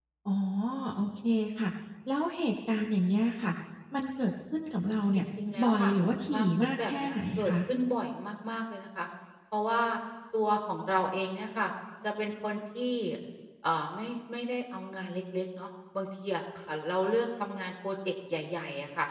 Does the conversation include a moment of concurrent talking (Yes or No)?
Yes